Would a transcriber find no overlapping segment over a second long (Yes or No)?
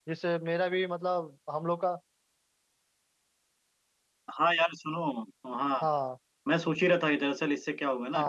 Yes